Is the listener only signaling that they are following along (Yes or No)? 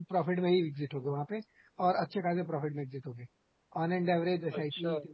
Yes